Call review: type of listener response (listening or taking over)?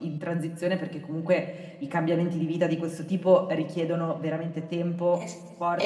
taking over